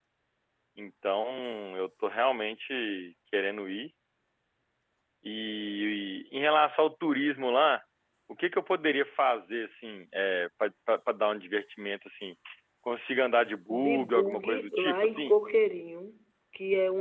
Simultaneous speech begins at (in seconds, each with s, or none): 13.7 s